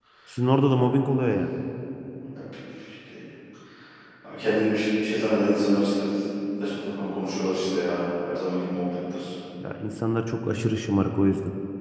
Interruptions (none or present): none